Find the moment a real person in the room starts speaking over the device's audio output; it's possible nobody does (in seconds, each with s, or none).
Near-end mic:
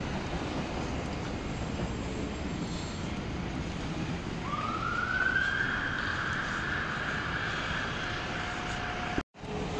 none